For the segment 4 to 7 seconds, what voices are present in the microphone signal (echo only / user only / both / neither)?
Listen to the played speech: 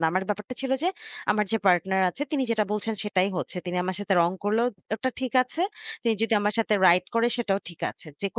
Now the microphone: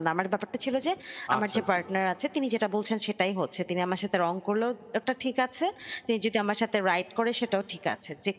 echo only